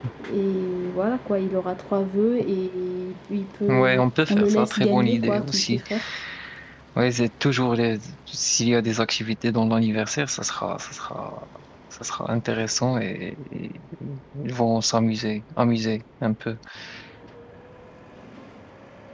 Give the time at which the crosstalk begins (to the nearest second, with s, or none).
4 s